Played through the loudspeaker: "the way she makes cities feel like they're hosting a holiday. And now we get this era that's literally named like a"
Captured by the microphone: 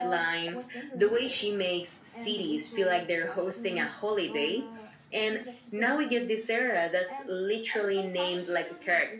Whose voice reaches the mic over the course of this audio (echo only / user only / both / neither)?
both